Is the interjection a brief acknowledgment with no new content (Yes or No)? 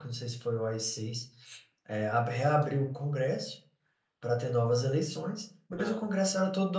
Yes